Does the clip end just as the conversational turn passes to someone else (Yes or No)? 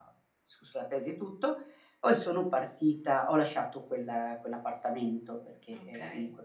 No